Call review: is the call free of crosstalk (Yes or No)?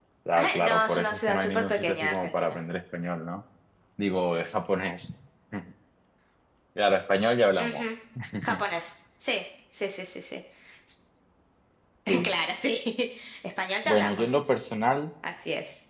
No